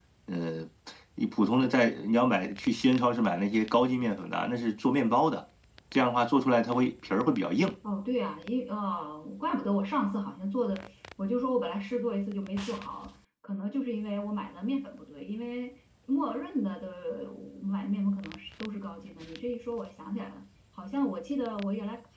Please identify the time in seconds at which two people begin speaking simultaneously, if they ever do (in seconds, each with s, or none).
none